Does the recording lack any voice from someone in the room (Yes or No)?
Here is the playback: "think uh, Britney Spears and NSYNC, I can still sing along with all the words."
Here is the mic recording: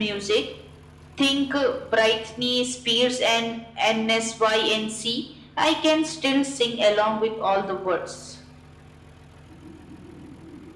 Yes